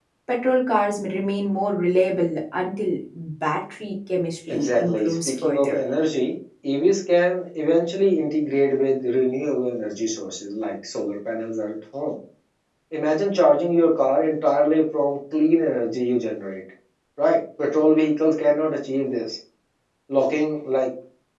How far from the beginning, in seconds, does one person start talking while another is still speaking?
4 s

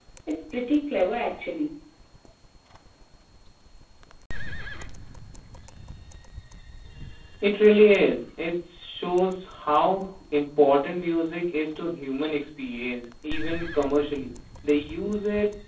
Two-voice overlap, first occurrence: none

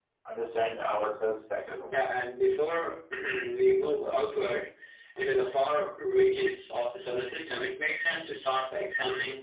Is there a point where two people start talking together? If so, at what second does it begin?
none

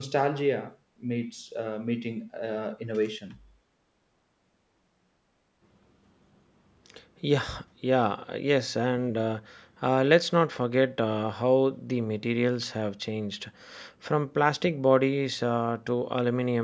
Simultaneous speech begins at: none

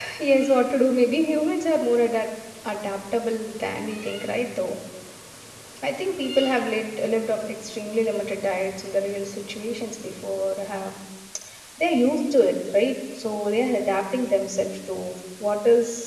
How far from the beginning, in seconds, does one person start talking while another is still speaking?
none

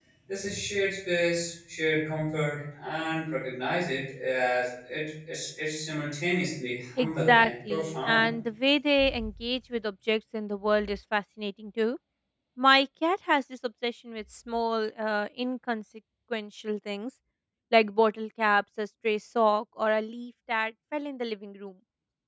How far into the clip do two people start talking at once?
7 s

